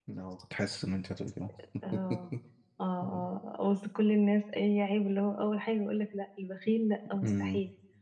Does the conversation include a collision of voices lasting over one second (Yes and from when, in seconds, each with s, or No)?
No